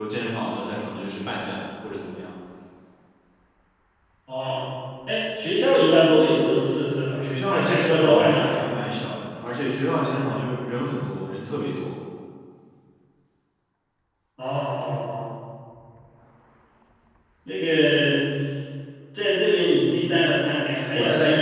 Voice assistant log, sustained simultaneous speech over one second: present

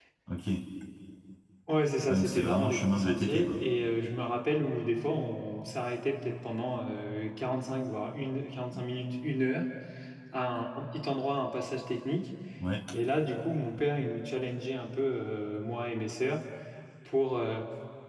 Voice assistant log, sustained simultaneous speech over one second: present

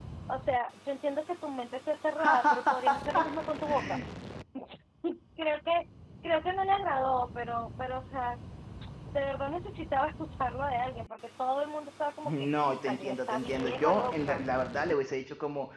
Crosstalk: present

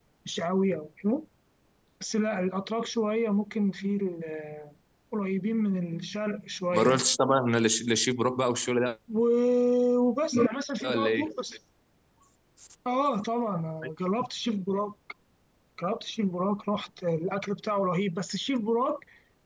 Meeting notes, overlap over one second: none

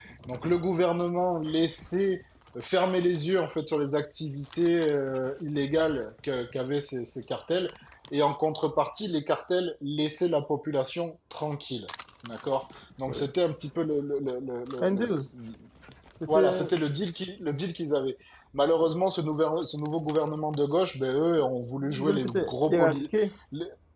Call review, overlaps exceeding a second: present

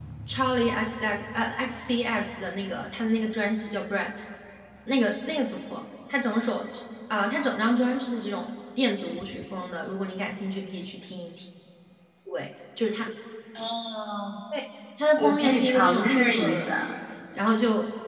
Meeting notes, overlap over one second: present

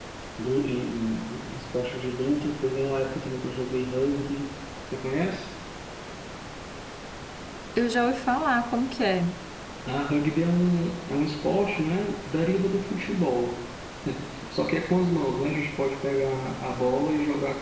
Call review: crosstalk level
none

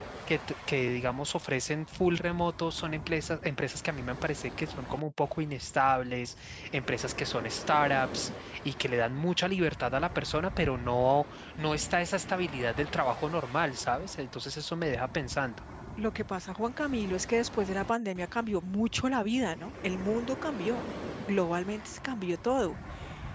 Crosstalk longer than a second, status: none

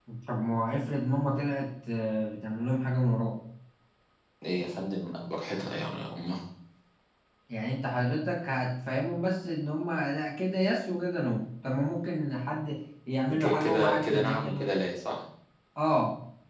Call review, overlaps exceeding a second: present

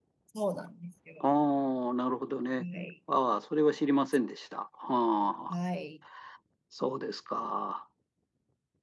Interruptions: none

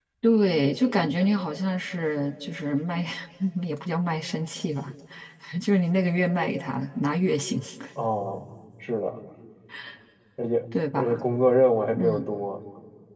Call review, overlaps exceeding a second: none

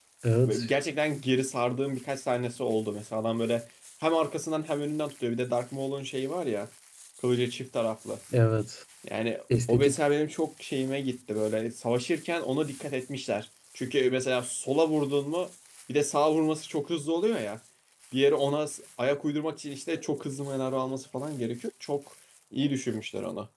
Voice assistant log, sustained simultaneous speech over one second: none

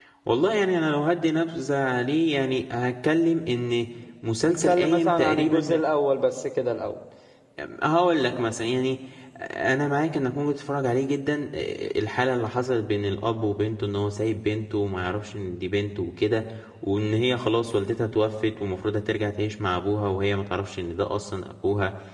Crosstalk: present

